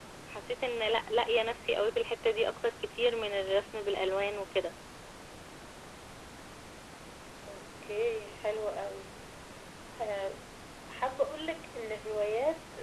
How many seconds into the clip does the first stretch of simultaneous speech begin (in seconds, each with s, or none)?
none